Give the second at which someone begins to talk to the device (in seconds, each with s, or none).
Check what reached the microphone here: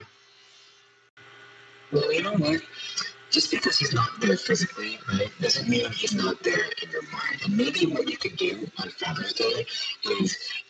none